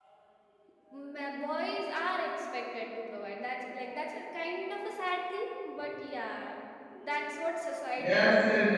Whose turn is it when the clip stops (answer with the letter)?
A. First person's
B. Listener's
B